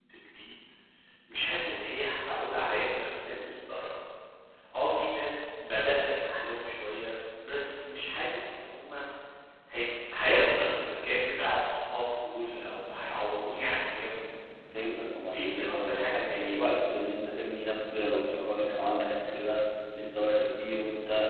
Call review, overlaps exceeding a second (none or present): present